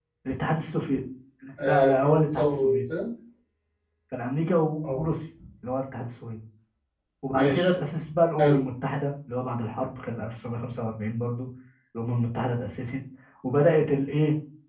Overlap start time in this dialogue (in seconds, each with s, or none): 1.6 s